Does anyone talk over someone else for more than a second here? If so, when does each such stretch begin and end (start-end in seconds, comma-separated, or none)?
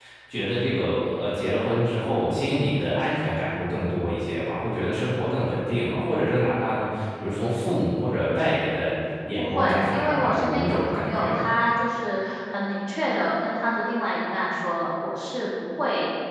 9.3-11.5